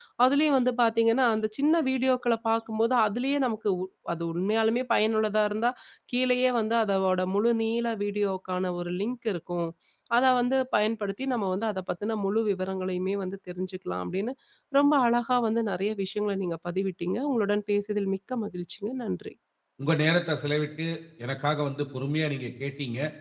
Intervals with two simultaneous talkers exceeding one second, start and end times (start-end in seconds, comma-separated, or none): none